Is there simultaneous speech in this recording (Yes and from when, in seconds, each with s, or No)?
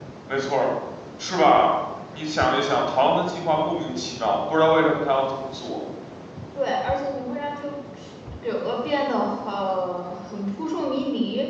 No